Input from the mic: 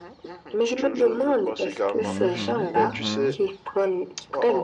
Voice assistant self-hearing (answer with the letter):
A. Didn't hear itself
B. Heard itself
B